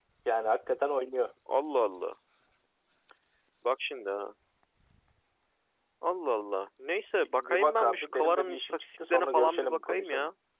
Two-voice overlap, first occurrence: 7.2 s

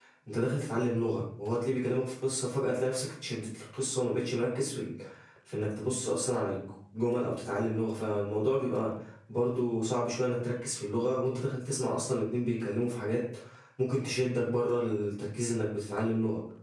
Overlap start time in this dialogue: none

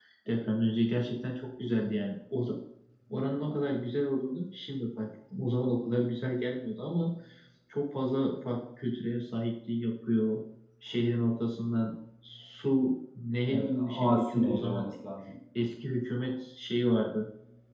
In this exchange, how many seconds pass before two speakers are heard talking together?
13.5 s

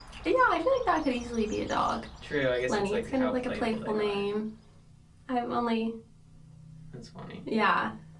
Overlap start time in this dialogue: 2.7 s

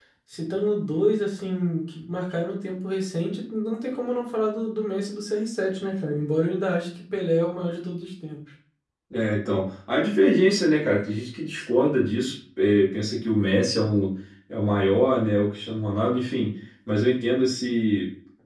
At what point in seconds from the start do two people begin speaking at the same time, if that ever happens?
none

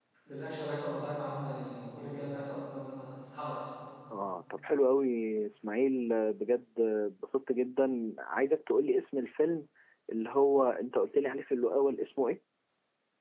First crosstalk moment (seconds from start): none

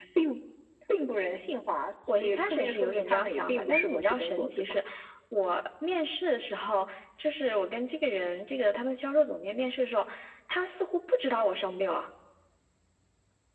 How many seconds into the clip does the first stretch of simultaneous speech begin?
2.1 s

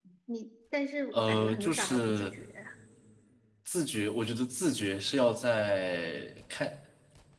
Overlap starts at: 1.1 s

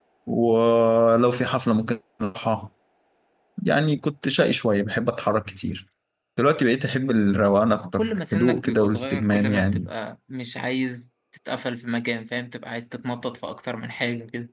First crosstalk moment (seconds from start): 7.8 s

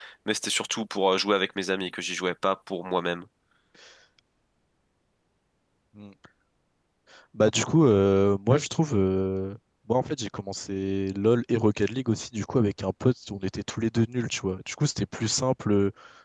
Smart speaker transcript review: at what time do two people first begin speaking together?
none

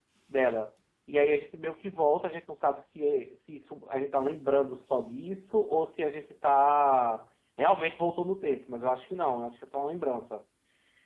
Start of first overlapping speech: none

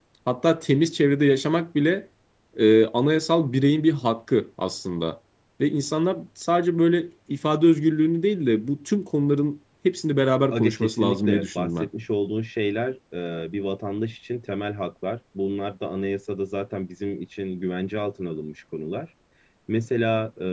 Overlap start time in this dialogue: 10.5 s

